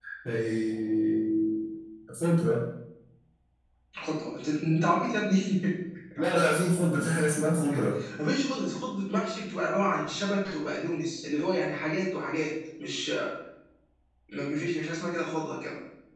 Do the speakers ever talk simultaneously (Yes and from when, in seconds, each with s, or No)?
No